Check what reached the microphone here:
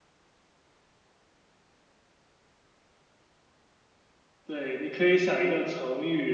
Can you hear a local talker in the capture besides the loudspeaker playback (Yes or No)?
Yes